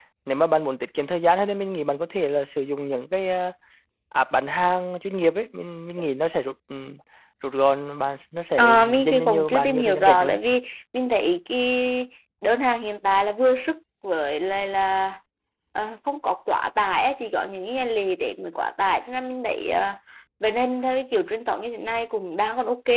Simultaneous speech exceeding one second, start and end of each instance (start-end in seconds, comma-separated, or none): 8.6-10.4